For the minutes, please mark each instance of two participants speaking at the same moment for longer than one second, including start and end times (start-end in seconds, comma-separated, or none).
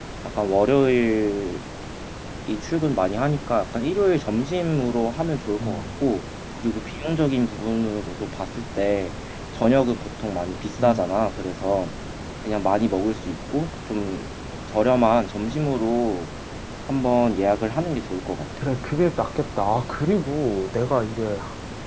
none